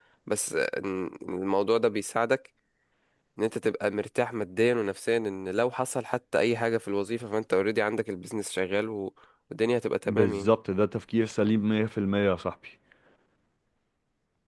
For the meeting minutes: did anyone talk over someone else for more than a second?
No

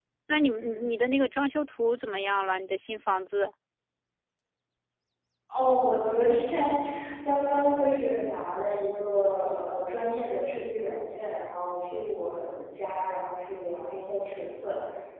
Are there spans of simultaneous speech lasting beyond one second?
No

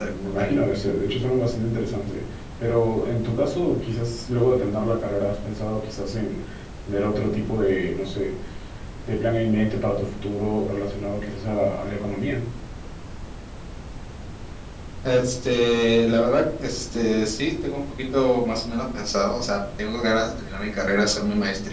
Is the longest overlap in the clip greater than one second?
No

